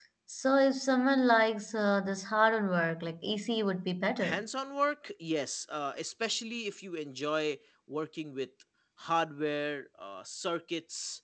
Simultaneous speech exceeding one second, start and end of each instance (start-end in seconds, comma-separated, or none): none